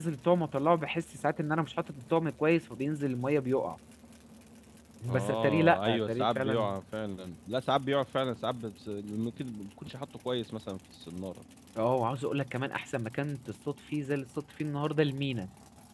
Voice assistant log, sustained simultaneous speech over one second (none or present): present